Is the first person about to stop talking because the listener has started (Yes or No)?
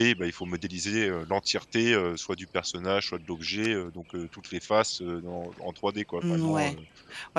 Yes